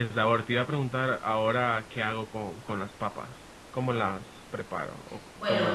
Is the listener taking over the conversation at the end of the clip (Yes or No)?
Yes